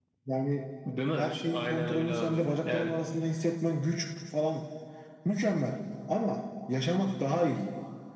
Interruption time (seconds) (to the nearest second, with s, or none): 1 s